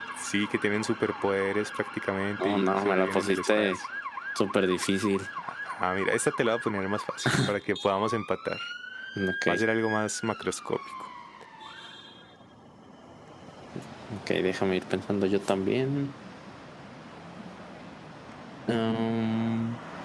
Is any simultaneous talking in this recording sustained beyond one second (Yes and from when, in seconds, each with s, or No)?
Yes, from 2.4 s